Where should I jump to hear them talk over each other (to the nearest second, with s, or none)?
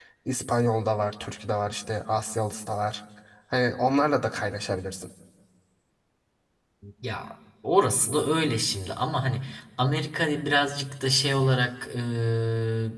none